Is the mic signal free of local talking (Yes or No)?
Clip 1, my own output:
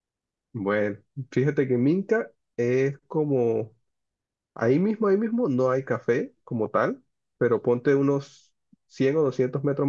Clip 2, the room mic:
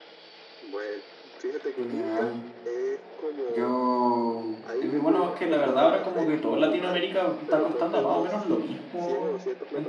No